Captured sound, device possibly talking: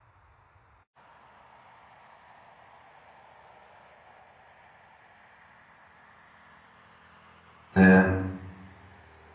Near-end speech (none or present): present